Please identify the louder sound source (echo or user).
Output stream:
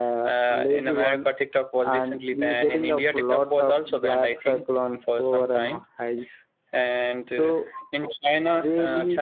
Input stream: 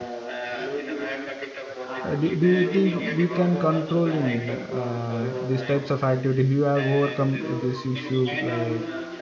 user